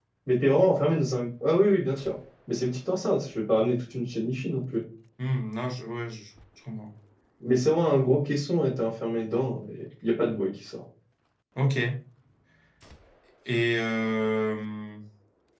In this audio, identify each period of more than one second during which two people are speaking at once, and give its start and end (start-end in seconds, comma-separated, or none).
none